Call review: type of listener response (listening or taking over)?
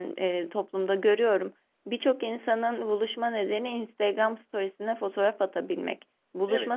listening